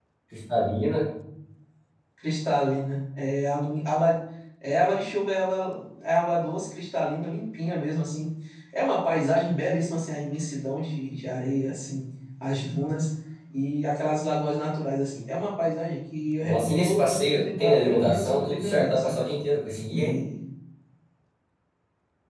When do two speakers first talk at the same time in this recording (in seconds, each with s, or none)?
16.4 s